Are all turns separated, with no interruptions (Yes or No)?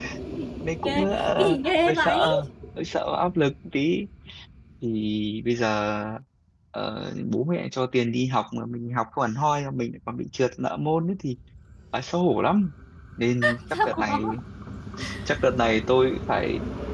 No